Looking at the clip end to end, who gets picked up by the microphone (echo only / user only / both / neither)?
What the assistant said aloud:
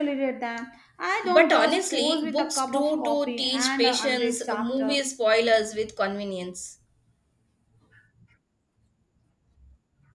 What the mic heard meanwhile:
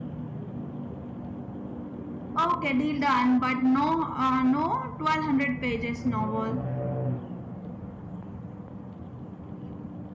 user only